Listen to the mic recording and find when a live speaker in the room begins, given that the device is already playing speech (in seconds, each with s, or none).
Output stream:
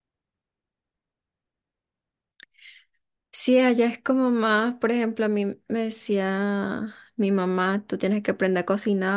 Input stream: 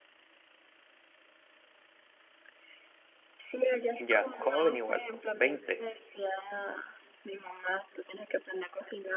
4.0 s